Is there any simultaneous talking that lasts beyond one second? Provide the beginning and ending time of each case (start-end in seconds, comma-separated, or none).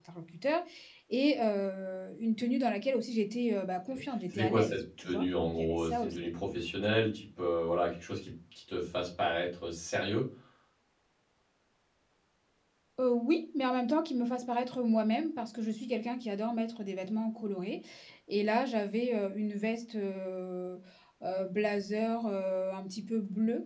4.3-6.2